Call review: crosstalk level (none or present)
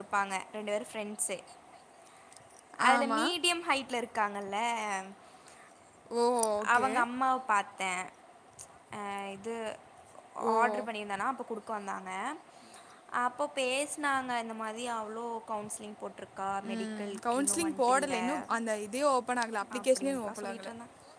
present